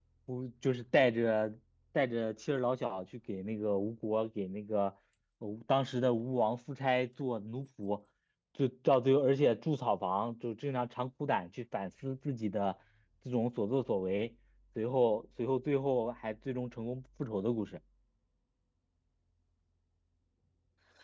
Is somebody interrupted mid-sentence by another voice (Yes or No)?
No